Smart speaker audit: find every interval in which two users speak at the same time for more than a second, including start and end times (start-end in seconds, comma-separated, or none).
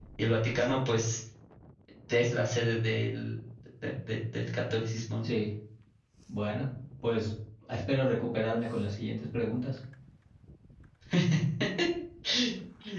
none